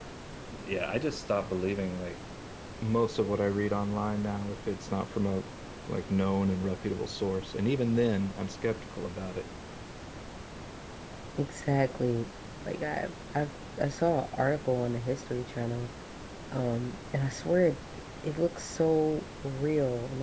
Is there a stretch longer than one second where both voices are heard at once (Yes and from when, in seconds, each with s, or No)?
No